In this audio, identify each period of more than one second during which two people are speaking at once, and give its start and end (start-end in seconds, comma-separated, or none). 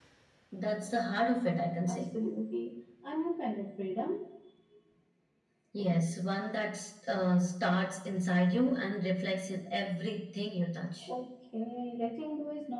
none